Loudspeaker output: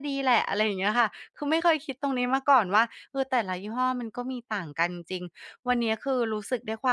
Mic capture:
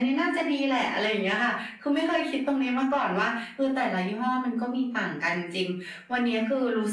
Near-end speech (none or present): none